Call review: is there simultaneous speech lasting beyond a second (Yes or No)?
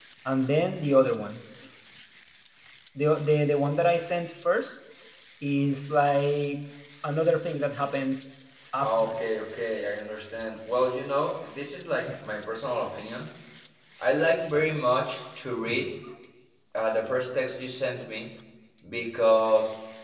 No